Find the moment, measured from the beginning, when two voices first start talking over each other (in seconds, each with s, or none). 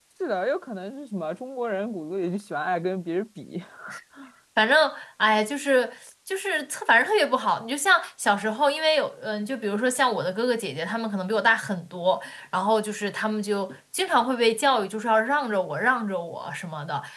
none